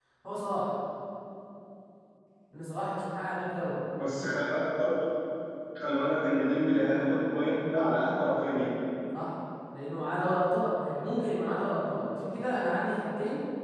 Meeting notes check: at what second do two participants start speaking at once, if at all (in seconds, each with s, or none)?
none